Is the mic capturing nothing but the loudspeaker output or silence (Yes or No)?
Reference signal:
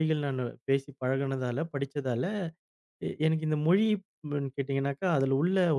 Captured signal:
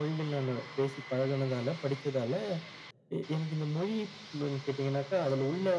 Yes